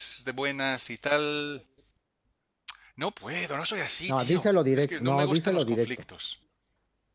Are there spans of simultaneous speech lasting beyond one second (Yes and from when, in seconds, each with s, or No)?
Yes, from 4.1 s